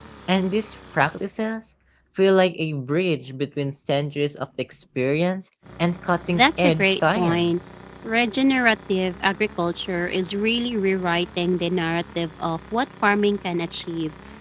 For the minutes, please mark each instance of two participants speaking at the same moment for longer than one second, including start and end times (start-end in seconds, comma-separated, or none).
6.3-7.5